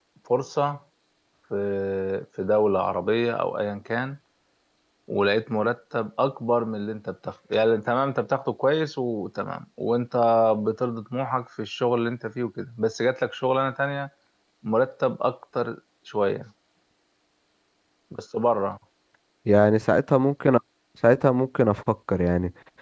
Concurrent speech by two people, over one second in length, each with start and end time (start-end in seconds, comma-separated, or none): none